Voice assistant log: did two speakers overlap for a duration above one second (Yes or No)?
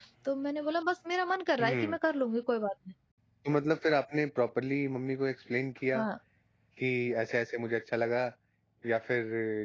No